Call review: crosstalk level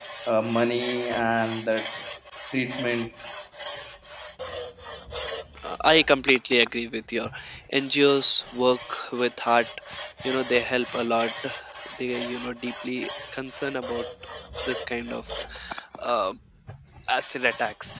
none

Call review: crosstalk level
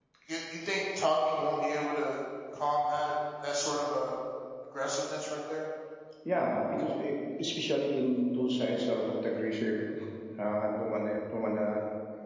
none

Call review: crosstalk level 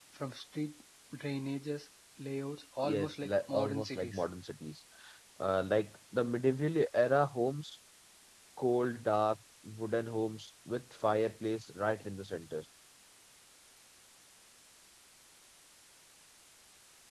present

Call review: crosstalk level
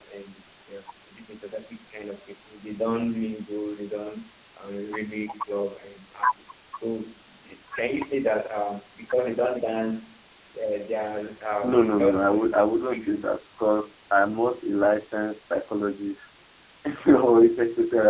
present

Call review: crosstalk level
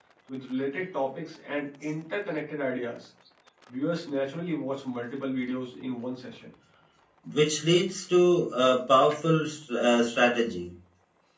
none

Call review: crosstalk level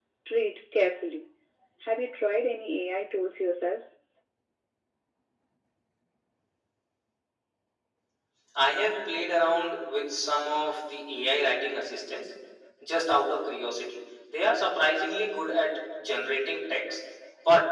none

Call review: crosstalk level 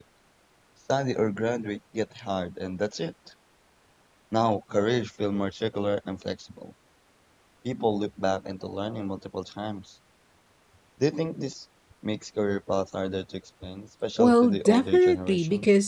present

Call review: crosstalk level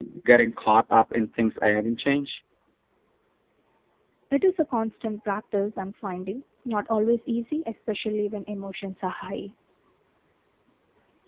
none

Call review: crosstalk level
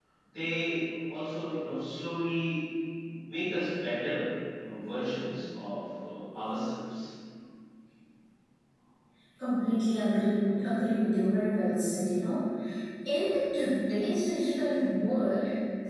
none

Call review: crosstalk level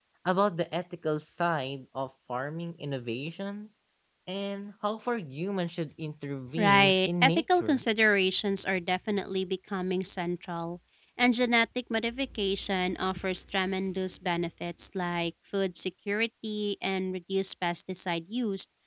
present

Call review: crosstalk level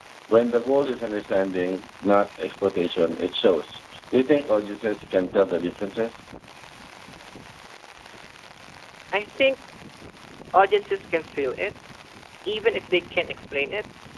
none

